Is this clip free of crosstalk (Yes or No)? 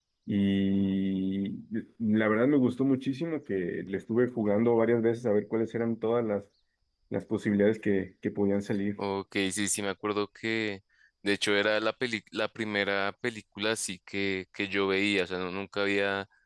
Yes